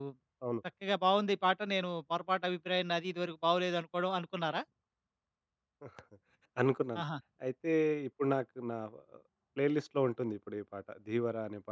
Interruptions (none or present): none